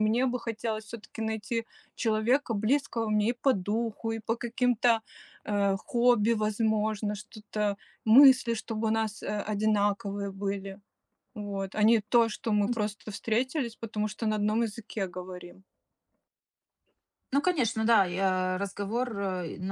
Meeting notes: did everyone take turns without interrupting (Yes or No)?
Yes